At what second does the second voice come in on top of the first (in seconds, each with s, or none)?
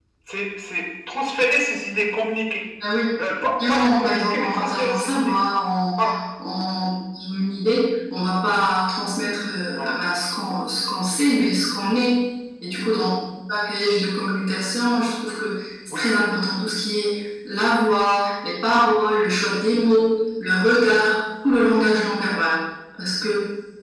3.7 s